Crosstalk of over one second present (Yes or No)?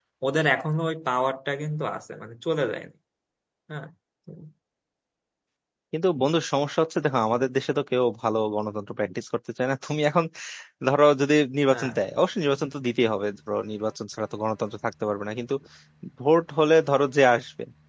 No